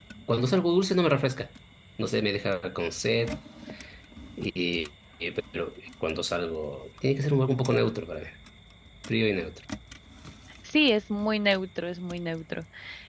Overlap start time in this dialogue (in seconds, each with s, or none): none